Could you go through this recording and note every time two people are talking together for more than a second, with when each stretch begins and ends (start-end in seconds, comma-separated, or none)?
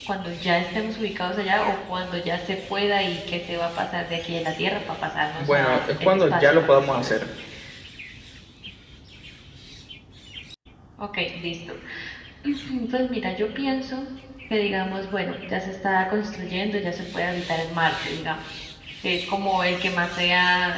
5.4-7.3